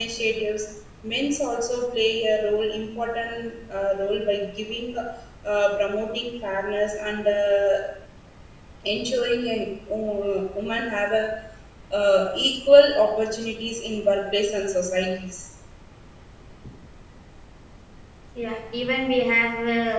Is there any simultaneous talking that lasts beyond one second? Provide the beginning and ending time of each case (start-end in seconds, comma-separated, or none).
none